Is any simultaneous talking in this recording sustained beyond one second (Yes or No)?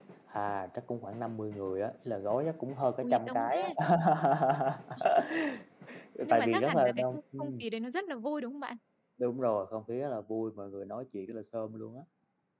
Yes